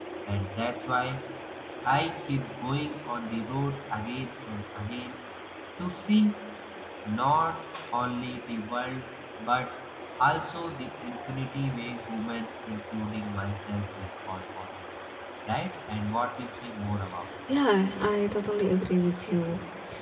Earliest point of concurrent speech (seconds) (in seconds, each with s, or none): none